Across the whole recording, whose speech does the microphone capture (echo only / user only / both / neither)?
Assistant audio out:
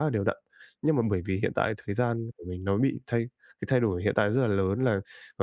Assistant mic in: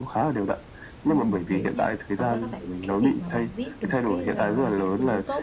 both